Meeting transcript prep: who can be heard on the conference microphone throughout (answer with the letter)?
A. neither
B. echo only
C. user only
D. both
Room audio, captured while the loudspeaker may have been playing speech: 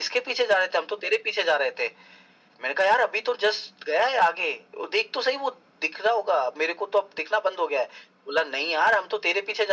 B